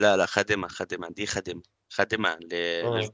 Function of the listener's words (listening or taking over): listening